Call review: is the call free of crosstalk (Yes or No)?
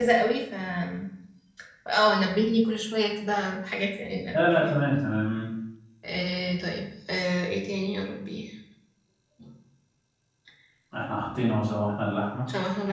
Yes